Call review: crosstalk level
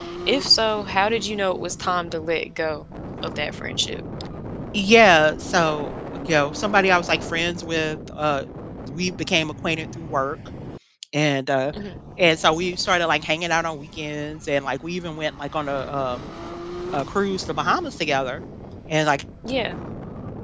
none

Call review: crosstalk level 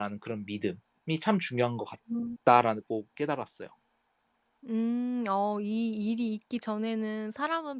none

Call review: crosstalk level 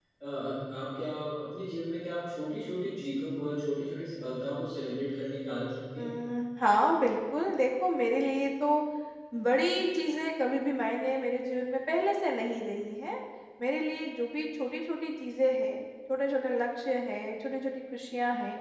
none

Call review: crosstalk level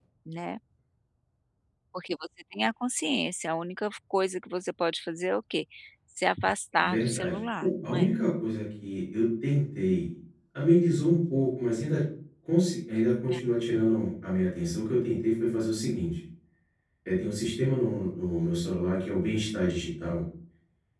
present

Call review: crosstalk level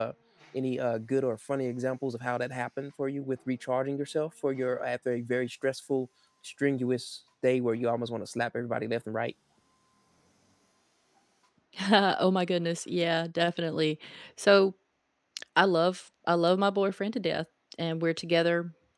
none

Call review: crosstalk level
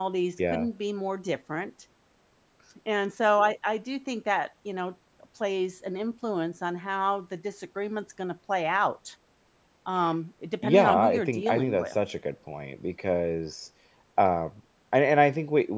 present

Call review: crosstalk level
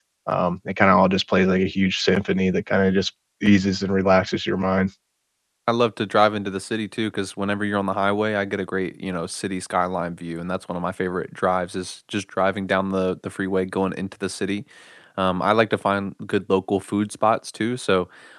none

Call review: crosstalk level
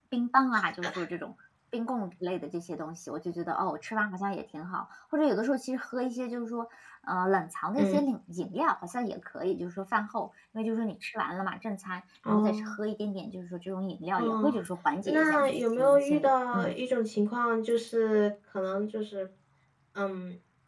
present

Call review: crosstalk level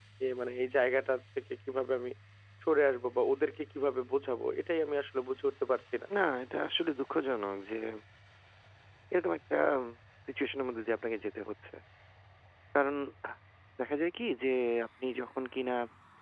none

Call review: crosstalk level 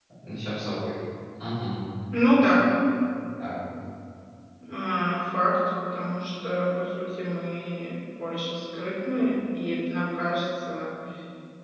none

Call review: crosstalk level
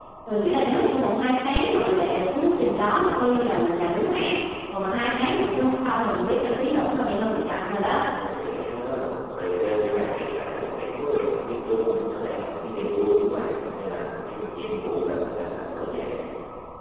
none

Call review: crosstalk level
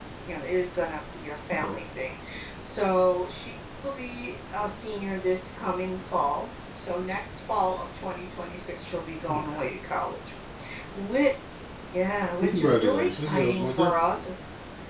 present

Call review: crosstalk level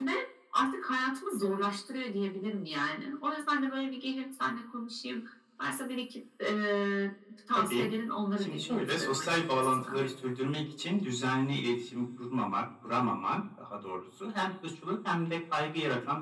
present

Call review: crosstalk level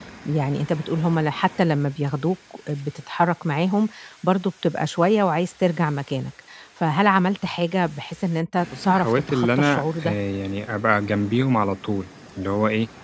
present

